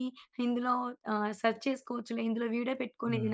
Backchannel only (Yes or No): No